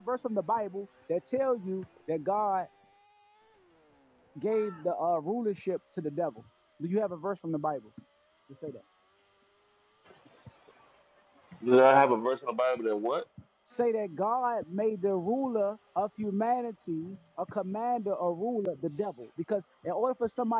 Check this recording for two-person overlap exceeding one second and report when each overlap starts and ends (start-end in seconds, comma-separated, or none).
none